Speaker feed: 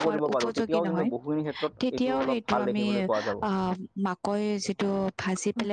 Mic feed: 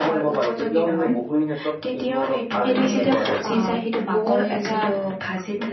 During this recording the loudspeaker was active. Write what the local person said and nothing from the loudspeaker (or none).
সেইটো যেতিয়া পচি যায়, সেইটো বৰ এটা